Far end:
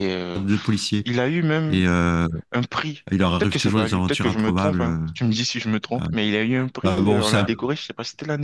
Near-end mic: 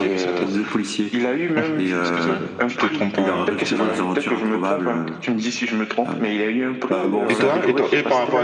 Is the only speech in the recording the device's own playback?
No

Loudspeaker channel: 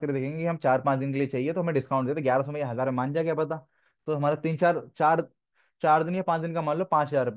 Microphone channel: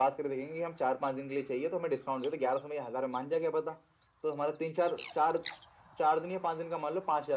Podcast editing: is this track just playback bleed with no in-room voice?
Yes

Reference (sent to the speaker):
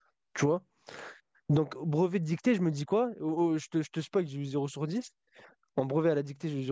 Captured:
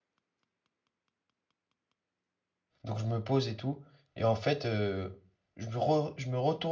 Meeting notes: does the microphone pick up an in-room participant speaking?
Yes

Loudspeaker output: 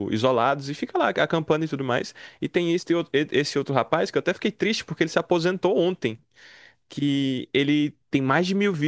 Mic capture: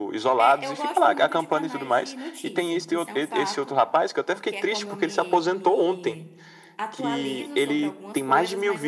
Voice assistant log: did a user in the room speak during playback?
Yes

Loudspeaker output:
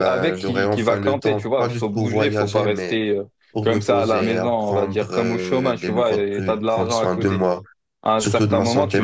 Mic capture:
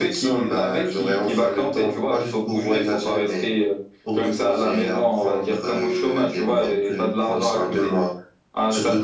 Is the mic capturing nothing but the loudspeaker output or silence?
Yes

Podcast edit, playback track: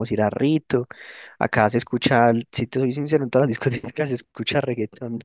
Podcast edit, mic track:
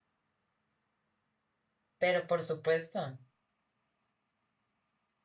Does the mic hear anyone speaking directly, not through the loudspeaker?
Yes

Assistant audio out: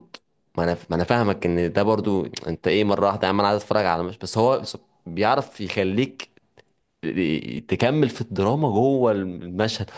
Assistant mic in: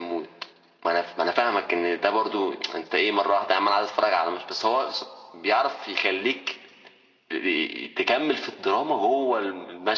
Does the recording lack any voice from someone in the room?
Yes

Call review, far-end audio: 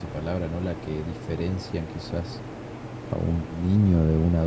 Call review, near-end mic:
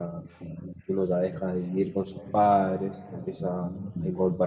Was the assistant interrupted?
Yes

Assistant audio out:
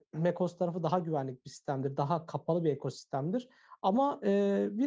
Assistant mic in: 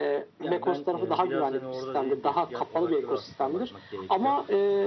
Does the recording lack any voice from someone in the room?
No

